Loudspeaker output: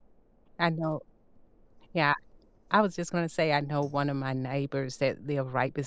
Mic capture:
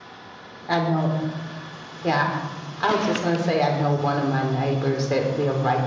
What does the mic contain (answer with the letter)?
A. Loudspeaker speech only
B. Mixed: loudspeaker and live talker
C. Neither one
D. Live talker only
A